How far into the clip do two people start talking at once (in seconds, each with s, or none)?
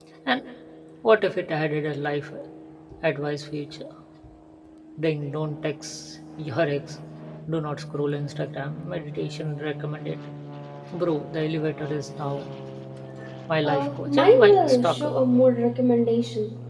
13.6 s